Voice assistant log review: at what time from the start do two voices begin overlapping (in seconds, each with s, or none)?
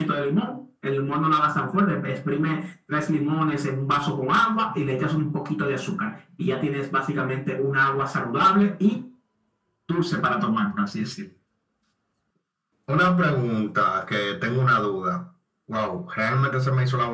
none